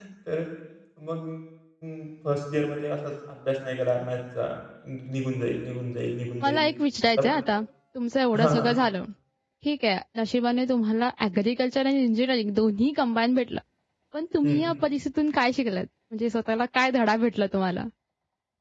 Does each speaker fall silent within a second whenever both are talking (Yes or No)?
Yes